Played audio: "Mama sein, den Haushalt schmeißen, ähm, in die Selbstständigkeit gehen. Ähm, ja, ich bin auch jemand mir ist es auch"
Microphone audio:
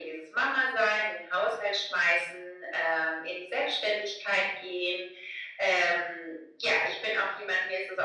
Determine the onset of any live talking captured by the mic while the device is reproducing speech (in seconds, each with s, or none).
none